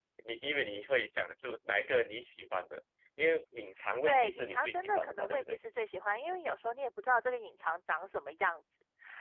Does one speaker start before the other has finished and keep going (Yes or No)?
Yes